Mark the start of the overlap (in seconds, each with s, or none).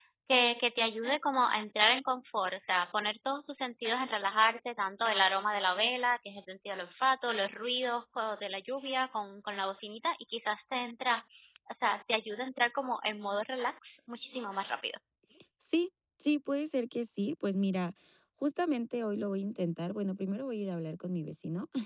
none